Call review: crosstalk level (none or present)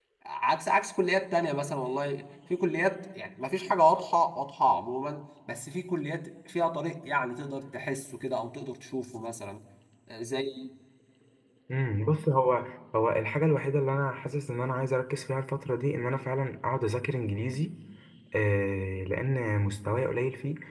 none